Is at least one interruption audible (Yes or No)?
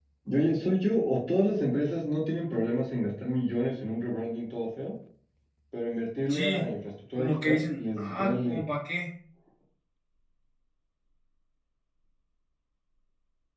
Yes